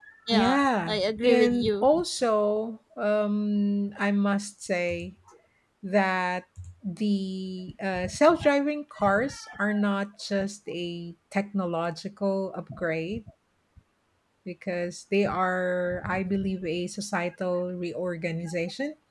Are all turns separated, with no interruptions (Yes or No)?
No